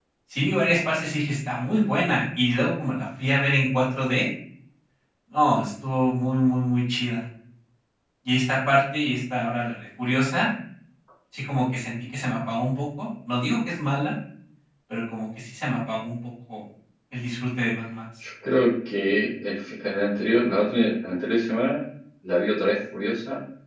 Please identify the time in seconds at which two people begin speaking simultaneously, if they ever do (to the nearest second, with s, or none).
none